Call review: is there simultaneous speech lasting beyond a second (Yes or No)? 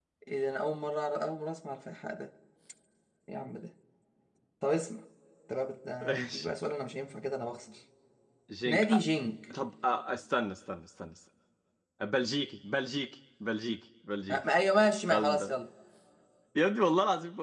No